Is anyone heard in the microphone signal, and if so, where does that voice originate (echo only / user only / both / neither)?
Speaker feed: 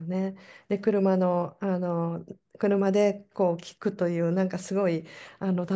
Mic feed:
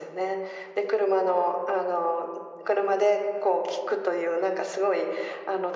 echo only